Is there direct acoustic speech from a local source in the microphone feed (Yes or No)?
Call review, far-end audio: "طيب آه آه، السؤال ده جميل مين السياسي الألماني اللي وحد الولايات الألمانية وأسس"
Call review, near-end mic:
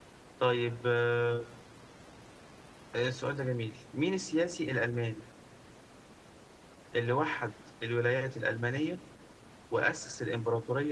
No